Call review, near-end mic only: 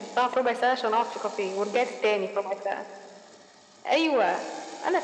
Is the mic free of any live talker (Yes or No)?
Yes